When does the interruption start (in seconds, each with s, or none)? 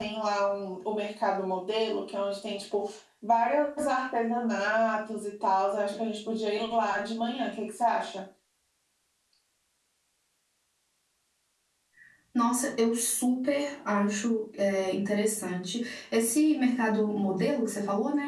none